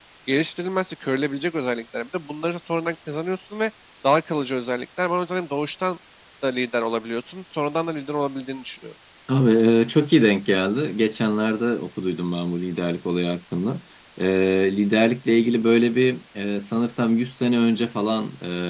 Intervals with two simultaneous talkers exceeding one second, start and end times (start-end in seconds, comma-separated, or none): none